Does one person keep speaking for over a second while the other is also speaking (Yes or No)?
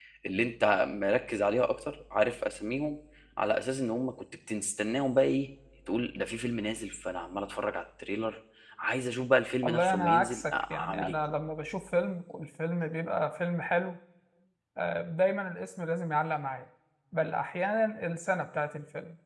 Yes